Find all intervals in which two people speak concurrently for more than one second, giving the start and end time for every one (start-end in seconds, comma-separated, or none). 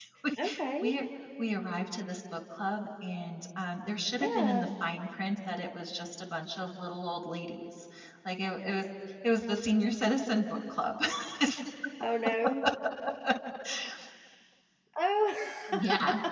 none